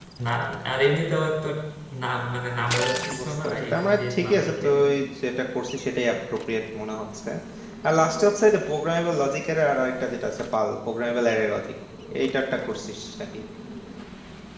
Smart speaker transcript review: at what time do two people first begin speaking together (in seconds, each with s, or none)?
3.0 s